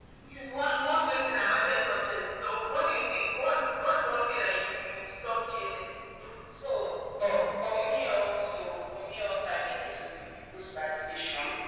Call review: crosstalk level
none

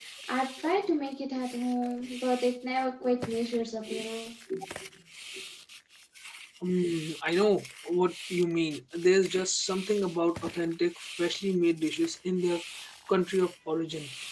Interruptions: none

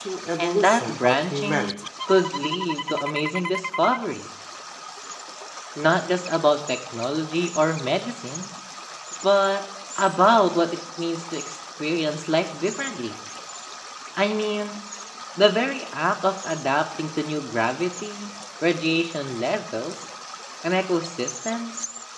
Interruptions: present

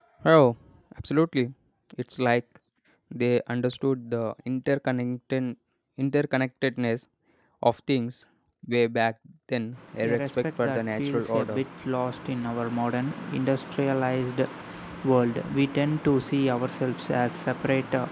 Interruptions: present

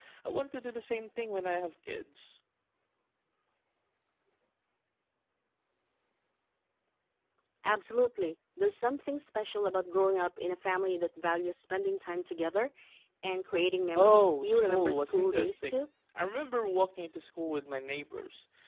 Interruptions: present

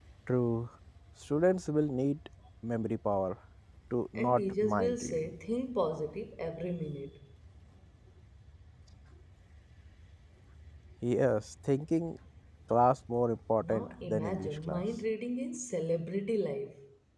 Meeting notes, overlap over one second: present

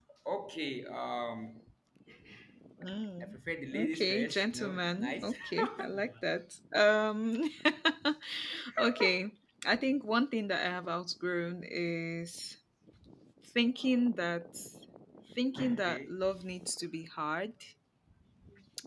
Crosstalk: present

